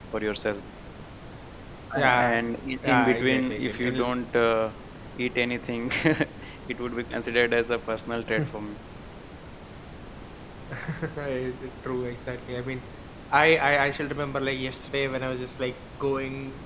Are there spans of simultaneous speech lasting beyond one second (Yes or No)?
Yes